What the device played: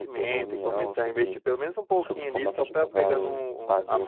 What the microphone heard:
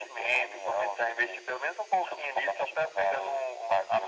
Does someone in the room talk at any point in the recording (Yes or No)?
No